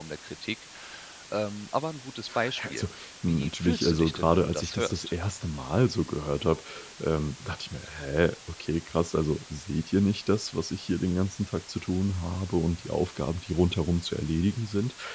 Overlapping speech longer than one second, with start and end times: 3.2-5.1

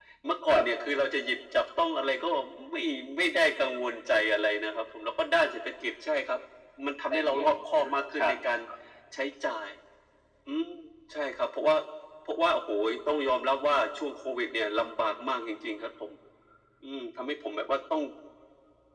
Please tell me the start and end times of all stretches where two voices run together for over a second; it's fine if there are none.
7.1-8.3

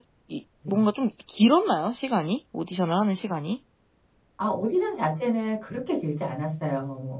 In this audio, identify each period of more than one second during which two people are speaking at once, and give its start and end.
none

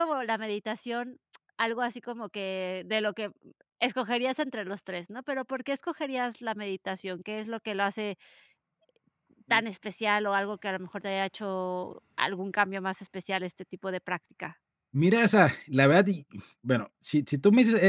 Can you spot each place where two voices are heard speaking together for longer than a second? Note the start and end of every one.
none

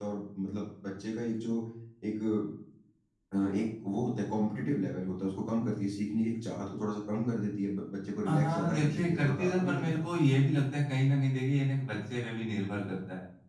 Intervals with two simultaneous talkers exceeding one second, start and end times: 8.2-10.0

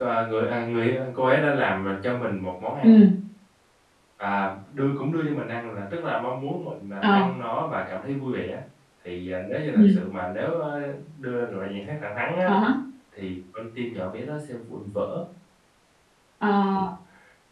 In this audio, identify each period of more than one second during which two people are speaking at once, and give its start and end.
none

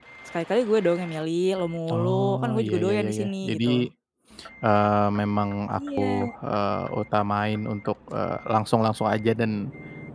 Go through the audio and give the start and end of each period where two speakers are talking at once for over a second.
1.9-3.6

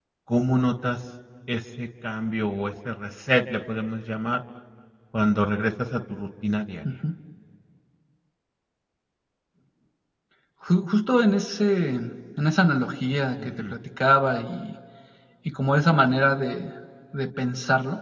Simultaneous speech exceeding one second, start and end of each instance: none

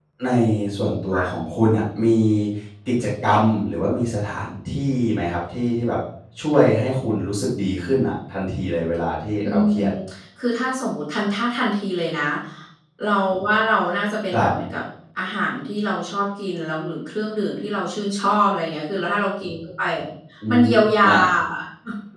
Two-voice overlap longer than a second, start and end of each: none

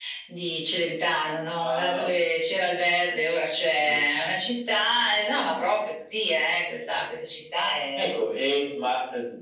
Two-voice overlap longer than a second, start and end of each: none

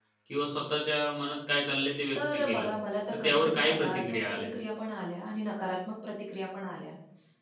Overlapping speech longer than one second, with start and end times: 3.2-4.5

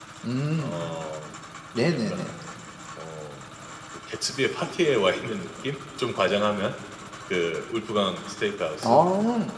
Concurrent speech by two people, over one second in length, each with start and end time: none

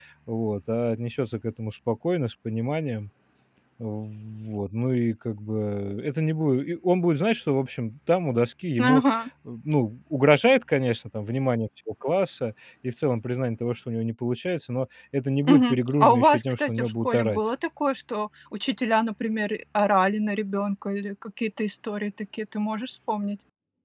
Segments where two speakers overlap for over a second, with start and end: 15.5-17.4

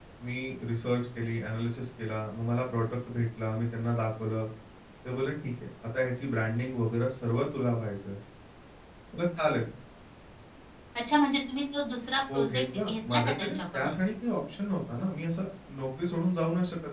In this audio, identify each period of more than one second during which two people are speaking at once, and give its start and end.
12.3-13.9

